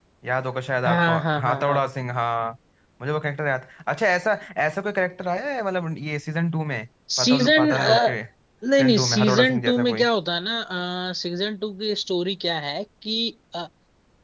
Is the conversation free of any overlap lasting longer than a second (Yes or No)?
No